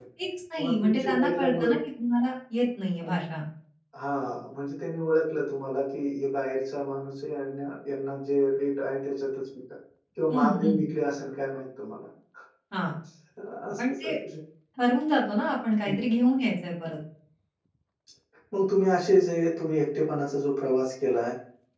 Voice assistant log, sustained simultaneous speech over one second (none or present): present